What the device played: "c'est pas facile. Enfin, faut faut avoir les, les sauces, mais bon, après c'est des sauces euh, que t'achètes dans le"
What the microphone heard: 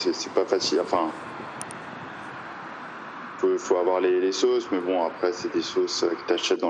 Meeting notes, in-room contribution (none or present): none